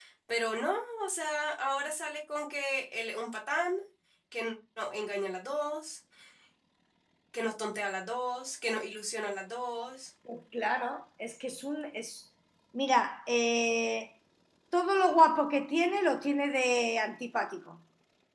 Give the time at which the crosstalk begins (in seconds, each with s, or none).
none